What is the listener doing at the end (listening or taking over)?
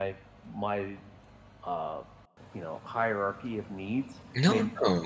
taking over